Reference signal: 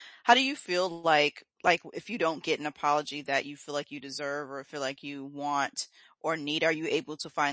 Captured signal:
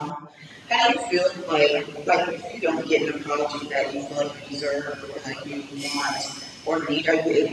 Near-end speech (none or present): none